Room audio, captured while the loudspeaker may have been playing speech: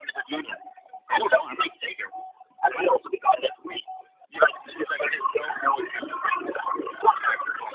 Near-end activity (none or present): none